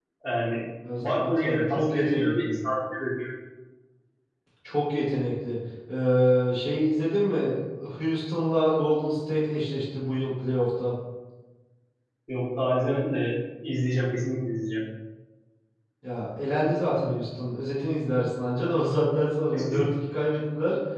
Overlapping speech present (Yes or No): Yes